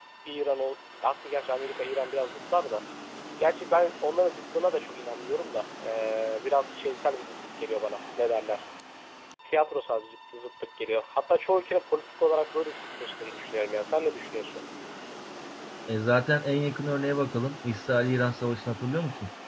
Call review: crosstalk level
none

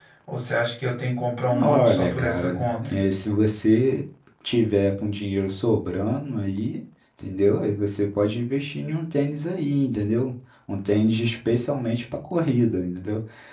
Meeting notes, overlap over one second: present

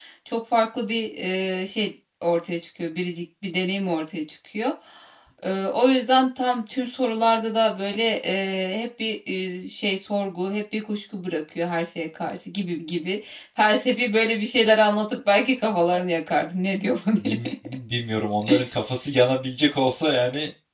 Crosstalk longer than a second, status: none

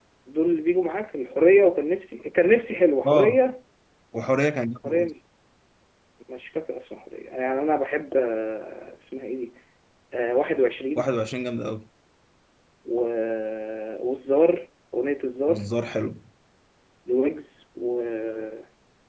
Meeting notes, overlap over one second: none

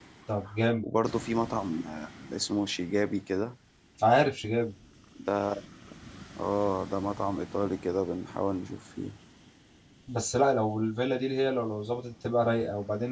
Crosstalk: none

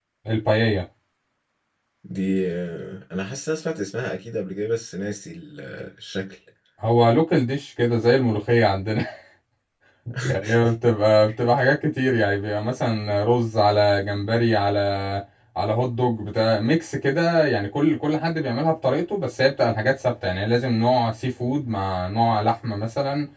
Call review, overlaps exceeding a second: none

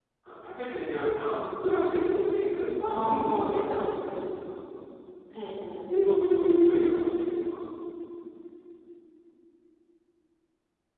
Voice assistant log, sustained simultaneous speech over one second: present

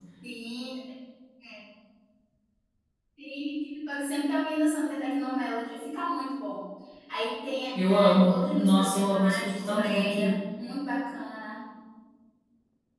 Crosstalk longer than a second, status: present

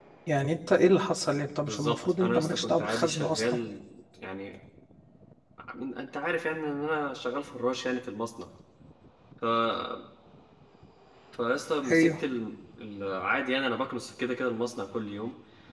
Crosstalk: present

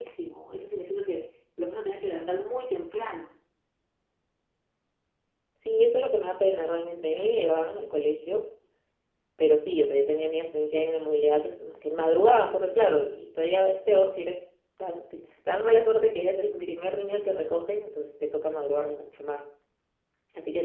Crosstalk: none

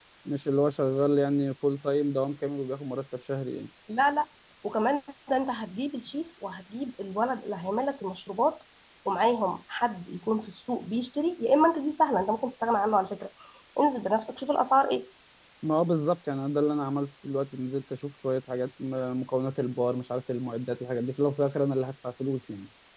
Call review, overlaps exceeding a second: none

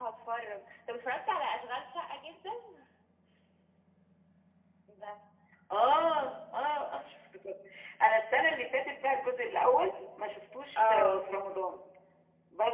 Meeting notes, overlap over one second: none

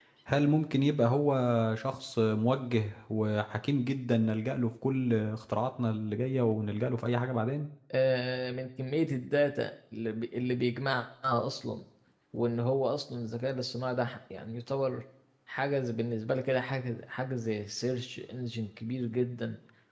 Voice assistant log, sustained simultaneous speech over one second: none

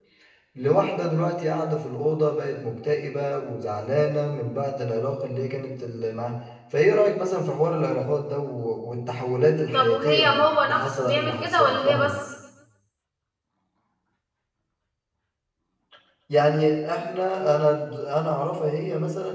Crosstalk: present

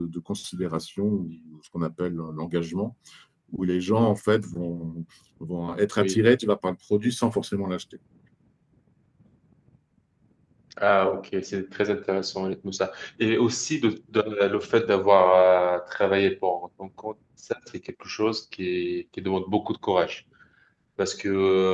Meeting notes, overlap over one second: none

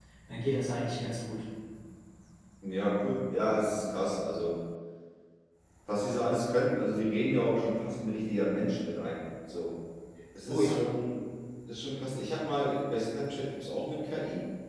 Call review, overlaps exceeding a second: none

